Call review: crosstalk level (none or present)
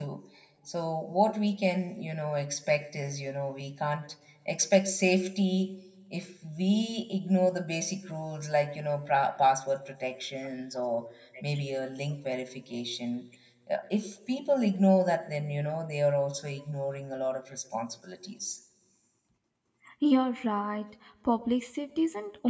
none